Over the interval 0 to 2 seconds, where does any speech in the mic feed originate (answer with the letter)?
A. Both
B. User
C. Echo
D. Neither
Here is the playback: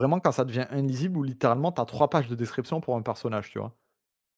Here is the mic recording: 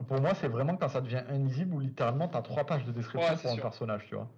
C